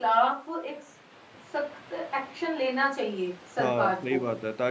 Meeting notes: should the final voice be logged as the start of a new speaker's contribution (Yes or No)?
Yes